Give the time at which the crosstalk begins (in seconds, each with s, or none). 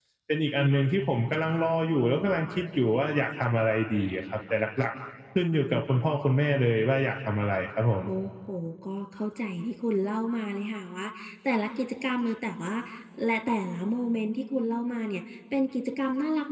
none